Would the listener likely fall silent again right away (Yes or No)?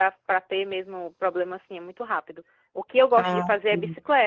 Yes